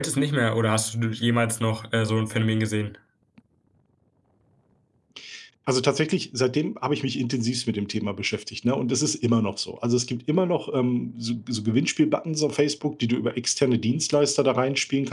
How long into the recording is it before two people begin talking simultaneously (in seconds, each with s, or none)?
none